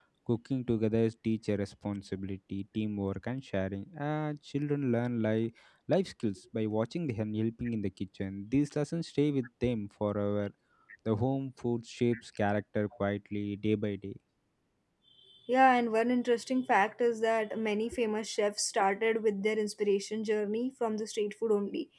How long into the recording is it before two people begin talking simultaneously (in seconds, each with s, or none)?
none